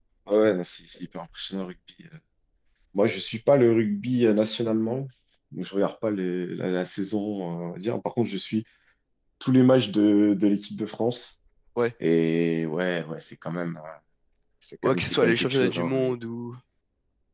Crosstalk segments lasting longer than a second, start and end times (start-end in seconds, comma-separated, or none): 14.8-16.1